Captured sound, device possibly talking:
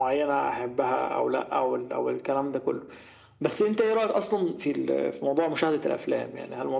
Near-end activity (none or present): none